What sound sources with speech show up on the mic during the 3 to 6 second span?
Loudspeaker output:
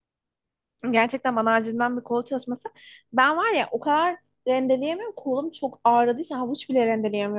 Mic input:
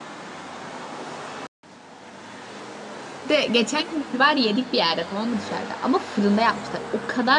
user only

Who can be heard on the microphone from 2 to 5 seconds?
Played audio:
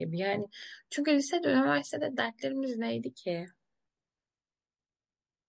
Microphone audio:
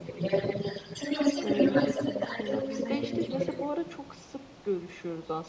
both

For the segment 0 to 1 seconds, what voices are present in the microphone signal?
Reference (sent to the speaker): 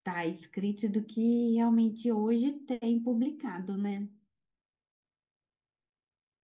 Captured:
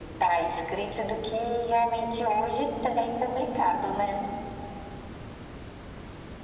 echo only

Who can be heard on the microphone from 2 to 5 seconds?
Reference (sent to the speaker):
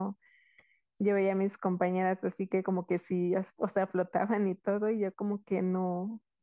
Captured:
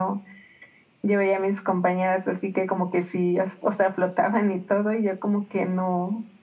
echo only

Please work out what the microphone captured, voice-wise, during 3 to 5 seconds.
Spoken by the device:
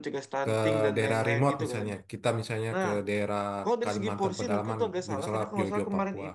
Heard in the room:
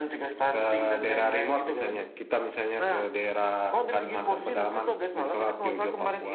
echo only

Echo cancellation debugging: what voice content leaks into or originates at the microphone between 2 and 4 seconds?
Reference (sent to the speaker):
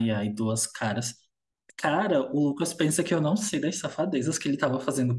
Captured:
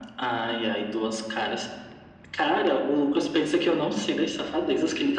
echo only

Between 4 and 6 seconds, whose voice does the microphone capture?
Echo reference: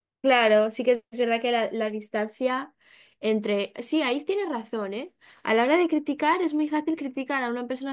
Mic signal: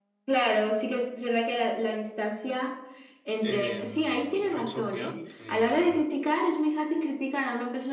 both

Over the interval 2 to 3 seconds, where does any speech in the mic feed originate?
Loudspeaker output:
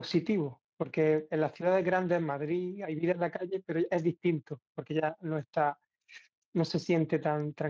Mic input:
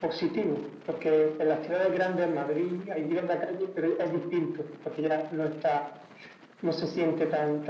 echo only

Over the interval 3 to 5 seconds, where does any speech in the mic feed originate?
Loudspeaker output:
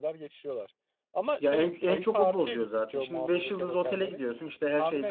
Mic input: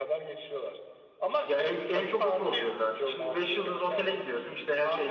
echo only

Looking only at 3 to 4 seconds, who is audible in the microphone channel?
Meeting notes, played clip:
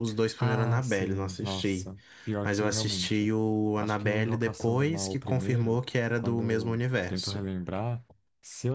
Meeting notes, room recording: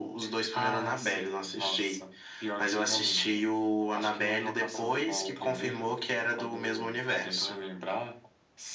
echo only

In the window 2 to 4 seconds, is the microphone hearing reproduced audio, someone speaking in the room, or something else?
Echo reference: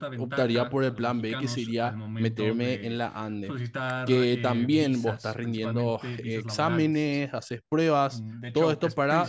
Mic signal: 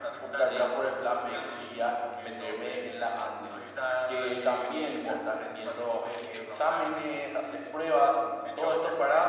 echo only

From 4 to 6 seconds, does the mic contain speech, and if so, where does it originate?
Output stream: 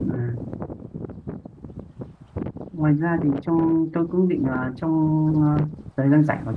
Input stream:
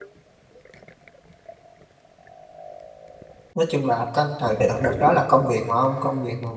user only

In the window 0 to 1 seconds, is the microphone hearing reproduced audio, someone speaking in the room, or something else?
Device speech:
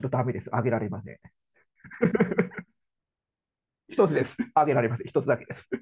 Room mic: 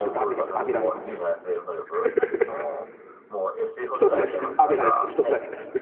both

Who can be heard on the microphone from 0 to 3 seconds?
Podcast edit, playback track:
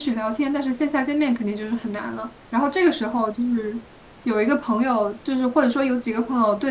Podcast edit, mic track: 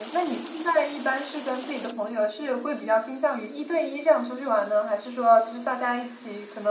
user only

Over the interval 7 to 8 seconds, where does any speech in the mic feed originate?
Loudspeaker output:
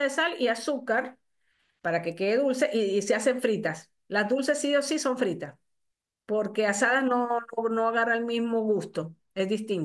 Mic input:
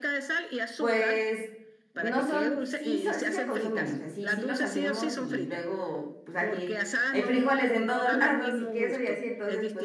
both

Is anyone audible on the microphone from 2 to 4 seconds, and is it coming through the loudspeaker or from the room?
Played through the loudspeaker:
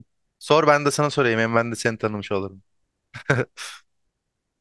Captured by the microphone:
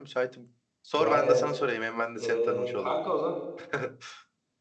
both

